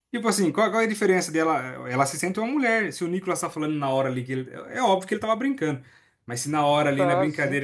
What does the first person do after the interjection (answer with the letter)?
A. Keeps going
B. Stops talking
A